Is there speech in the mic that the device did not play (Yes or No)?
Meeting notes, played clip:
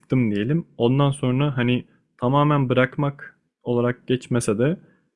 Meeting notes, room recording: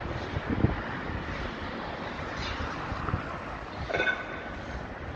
No